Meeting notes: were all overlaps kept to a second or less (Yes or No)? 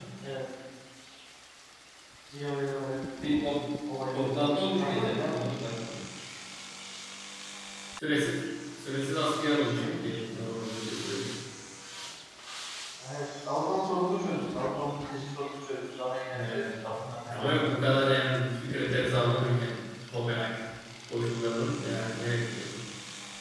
No